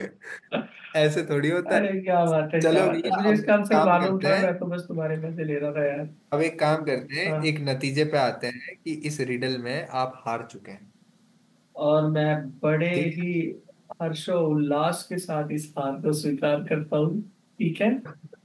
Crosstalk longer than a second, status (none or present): present